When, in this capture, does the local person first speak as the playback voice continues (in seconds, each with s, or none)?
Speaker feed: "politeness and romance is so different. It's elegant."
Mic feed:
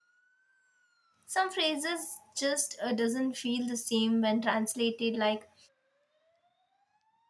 1.2 s